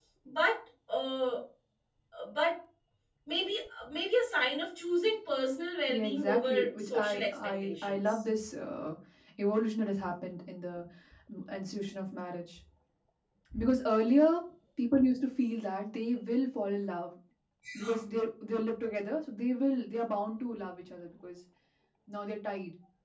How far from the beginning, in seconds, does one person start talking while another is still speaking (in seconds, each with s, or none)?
5.9 s